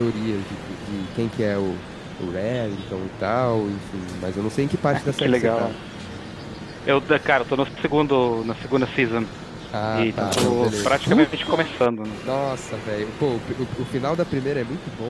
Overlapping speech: Yes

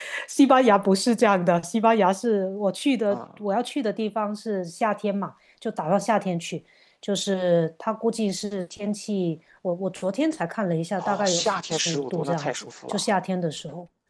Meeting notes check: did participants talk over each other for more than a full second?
Yes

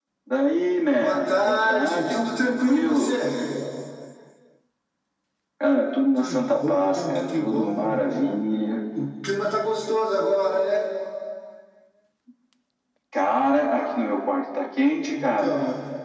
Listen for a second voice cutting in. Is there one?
Yes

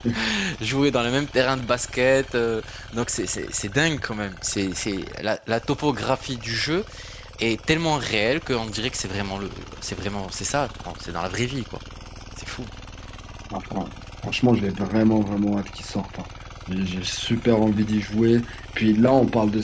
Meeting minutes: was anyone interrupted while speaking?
No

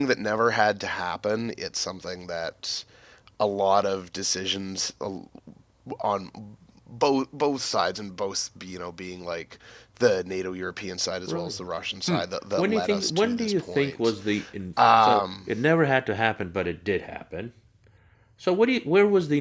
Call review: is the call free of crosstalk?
No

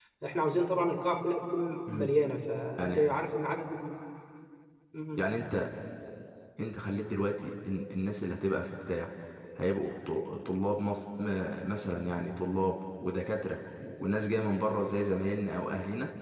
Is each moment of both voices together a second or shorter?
Yes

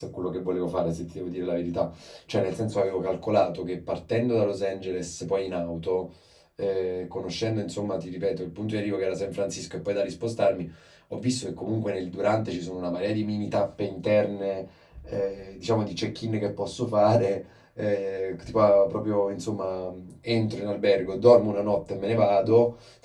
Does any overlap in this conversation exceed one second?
No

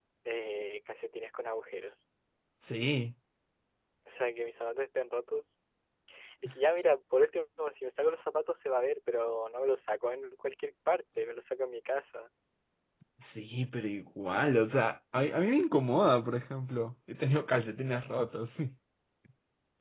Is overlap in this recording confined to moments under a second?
Yes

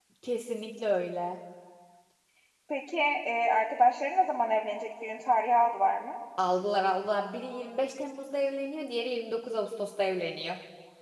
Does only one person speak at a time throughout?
Yes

